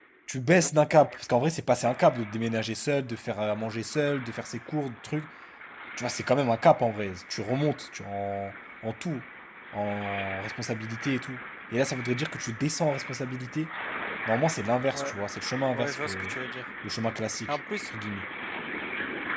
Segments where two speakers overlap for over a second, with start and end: none

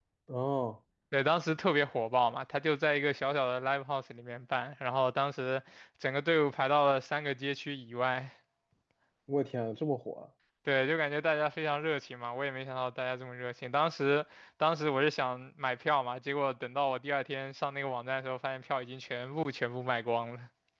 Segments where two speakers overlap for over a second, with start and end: none

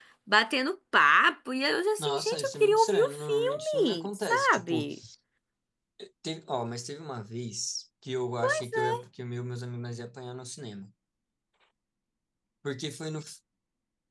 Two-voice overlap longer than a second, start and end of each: 2.0-4.9

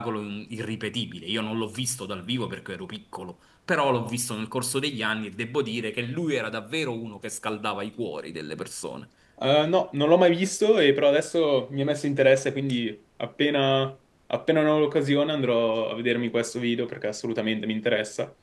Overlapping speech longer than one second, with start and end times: none

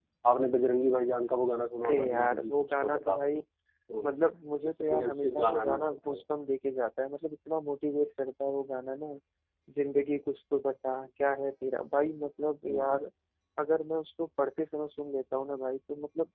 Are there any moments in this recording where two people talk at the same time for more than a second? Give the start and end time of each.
1.8-3.2, 4.8-6.2

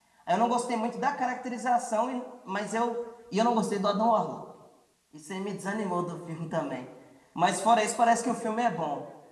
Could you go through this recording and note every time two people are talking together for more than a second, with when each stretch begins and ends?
none

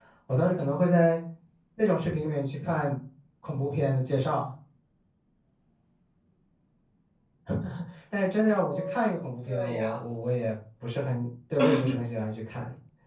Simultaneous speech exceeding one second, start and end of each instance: 8.7-10.0

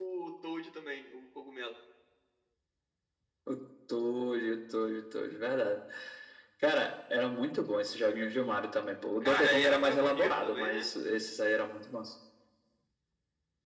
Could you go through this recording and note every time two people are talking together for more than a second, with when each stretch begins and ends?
9.2-10.9

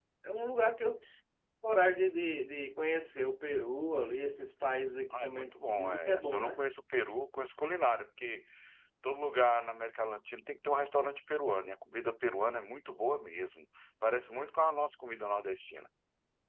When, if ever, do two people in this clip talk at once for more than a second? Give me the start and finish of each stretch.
5.1-6.6

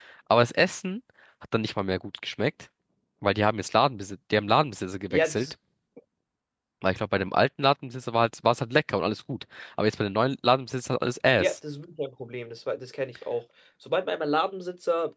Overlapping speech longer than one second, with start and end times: none

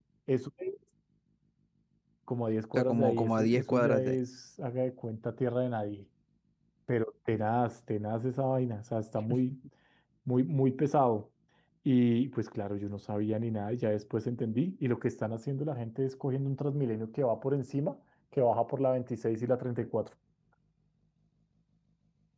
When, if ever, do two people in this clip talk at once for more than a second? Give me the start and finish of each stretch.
2.7-4.2

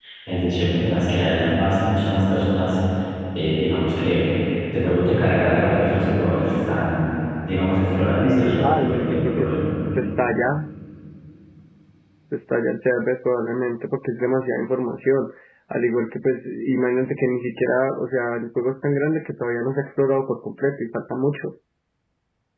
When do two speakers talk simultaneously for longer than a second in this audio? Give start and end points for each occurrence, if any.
8.2-9.6

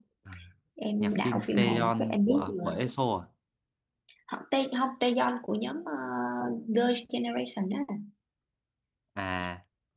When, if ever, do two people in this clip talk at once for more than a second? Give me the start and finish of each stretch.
1.0-2.5

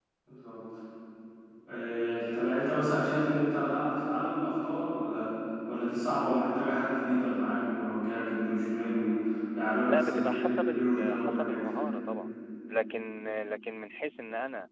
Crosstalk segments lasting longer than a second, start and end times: 9.8-11.8

